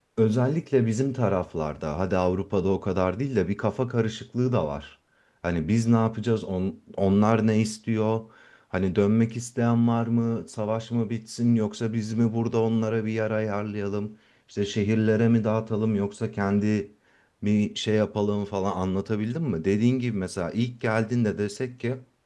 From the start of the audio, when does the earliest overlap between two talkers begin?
none

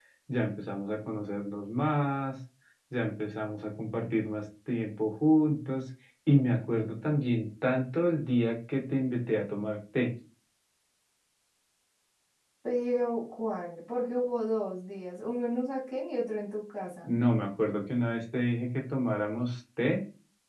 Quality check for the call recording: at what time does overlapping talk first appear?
none

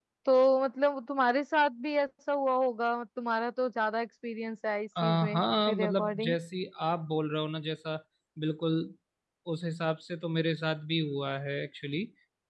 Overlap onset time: 5.0 s

